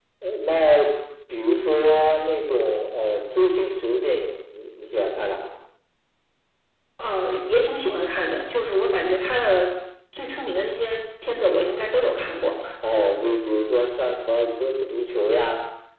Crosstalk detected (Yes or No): No